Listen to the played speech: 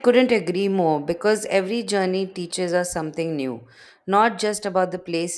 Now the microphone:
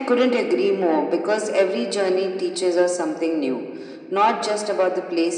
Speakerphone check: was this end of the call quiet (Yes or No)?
Yes